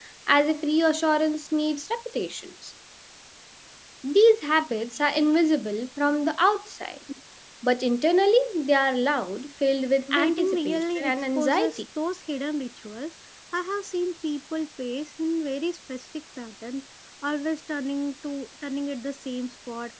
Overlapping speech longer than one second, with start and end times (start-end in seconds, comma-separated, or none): 10.1-11.8